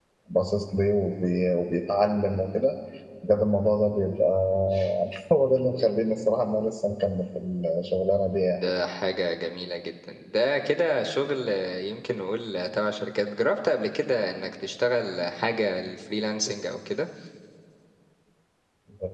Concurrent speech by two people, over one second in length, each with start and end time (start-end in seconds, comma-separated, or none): none